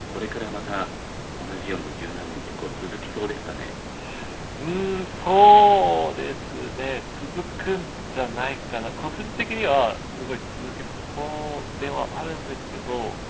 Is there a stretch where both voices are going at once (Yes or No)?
No